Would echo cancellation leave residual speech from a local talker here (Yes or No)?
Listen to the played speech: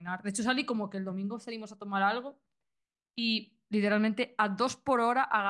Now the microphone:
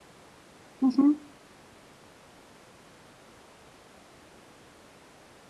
Yes